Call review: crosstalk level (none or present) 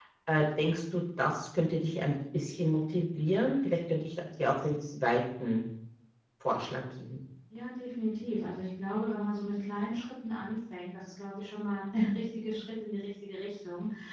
none